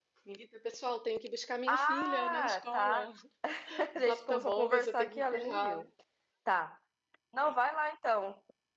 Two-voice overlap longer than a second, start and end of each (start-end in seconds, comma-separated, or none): 1.7-3.0, 4.0-5.8